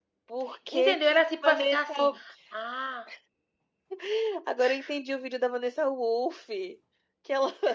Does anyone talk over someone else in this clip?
Yes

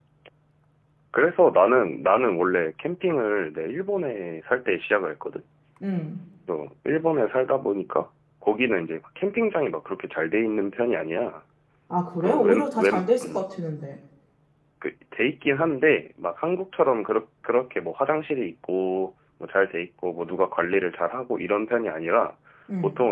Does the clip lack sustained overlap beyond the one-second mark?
No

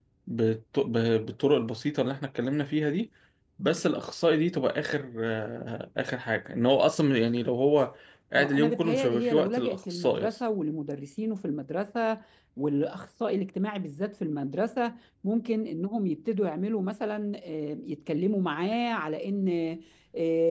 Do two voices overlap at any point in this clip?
Yes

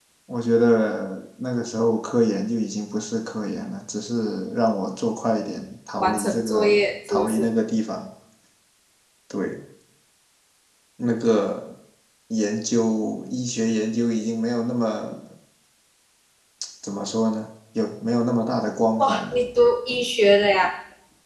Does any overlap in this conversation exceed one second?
Yes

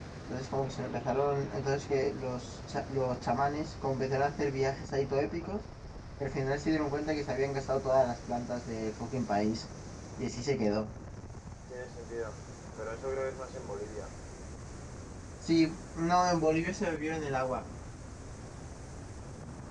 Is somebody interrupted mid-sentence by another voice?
No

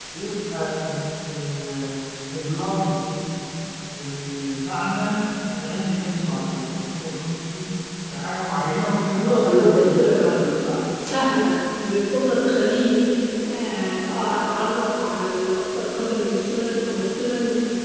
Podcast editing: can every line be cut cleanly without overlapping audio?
No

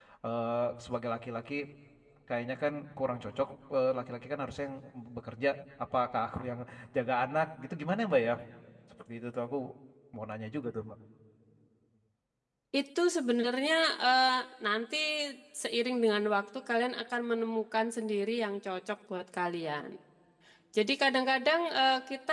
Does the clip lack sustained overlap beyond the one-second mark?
Yes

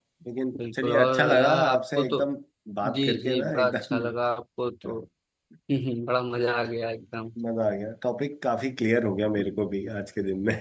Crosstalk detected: Yes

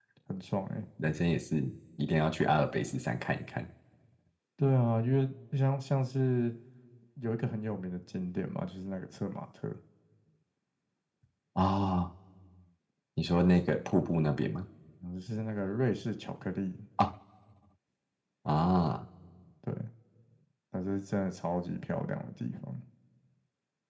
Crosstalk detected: No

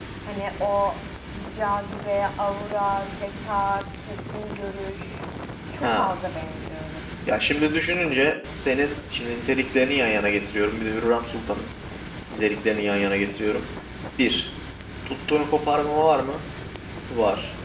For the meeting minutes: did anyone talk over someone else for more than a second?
No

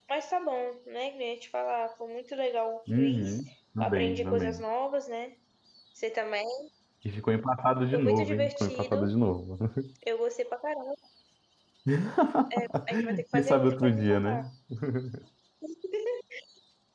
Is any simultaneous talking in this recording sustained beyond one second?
Yes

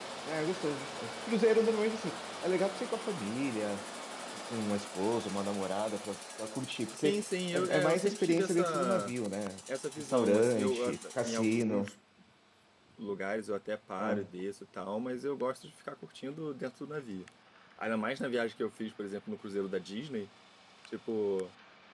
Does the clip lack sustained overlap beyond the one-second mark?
No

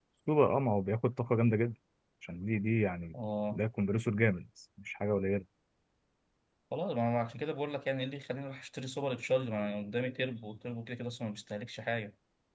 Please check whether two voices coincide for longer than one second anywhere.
No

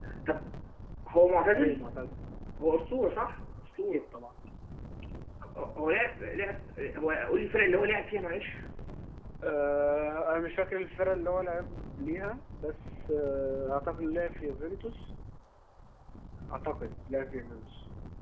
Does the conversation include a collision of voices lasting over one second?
No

